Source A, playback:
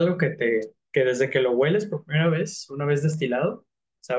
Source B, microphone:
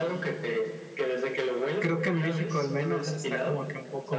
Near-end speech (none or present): present